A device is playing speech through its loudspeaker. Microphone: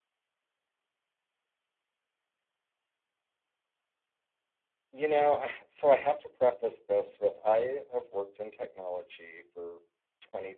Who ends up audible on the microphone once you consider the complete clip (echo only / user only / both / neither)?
user only